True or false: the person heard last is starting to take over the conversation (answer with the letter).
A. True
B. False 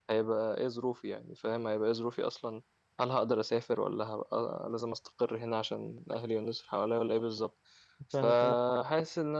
B